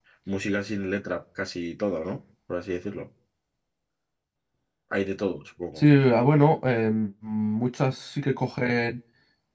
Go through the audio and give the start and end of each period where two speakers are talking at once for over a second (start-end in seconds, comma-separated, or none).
none